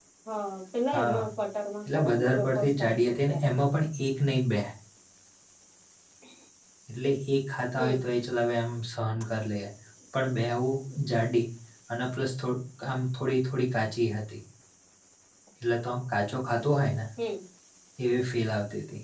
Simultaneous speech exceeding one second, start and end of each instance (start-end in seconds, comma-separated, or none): 1.9-3.4